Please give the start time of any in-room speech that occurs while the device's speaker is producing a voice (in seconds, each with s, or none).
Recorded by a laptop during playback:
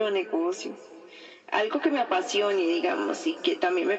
none